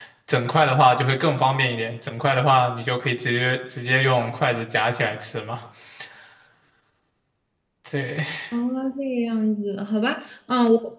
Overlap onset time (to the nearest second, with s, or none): none